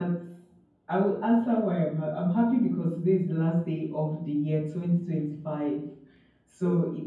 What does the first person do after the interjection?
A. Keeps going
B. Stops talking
A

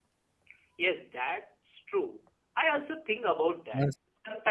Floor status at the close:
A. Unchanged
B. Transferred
A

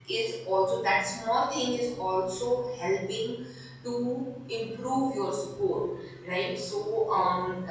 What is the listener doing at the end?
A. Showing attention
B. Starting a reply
A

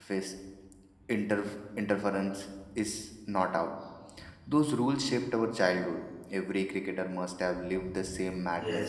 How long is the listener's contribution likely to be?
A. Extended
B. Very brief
A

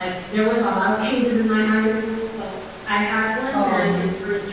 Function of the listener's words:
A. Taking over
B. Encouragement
B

